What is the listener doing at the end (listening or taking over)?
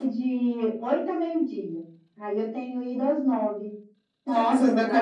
taking over